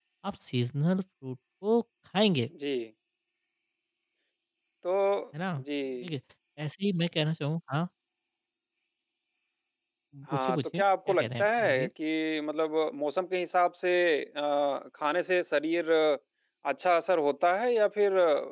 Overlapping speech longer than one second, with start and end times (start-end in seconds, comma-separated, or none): 10.3-11.9